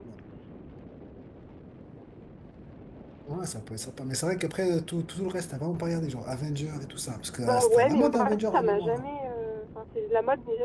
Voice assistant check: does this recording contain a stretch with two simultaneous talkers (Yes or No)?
Yes